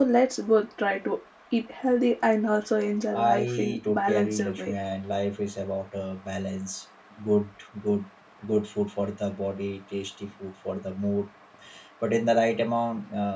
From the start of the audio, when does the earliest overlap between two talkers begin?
3 s

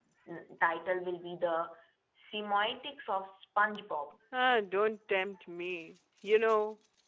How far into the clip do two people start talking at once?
none

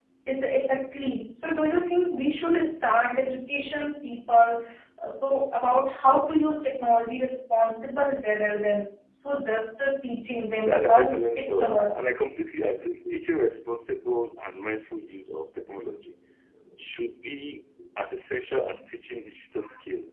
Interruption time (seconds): 11 s

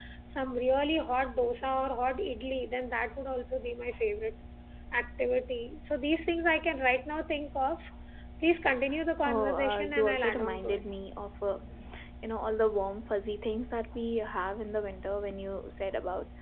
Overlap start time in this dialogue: 9 s

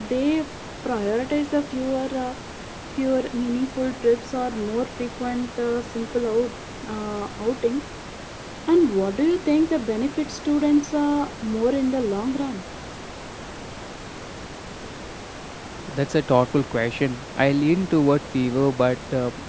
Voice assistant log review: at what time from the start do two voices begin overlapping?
none

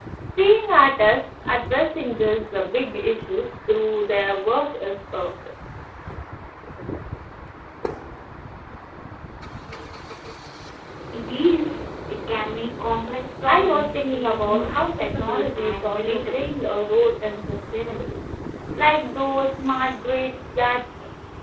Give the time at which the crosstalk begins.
13 s

